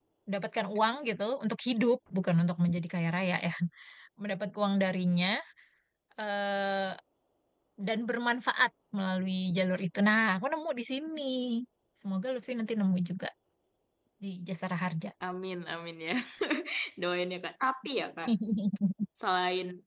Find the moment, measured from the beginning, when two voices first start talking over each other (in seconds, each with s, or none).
none